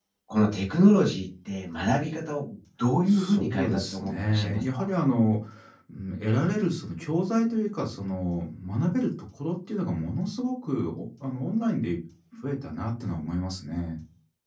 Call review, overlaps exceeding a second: present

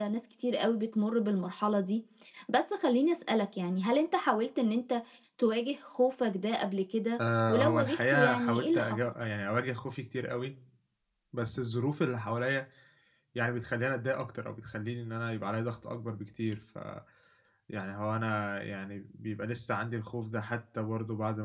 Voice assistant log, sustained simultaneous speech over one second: present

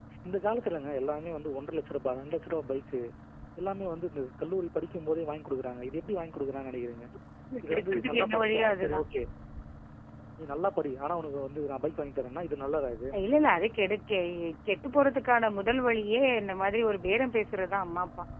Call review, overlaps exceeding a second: present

